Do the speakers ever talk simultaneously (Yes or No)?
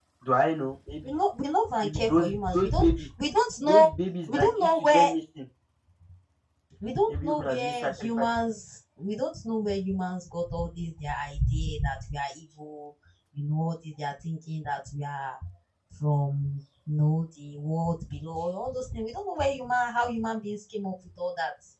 Yes